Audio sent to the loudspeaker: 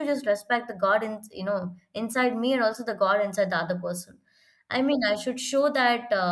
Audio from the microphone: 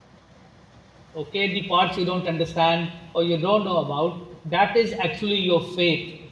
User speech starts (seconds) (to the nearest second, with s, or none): 1 s